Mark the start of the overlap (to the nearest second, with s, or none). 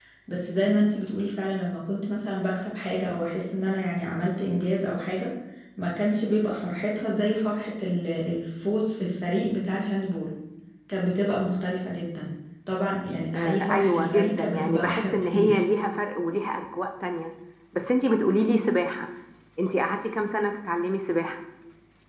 13 s